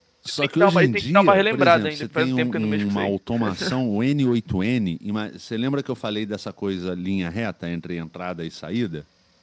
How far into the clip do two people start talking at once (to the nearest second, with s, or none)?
1 s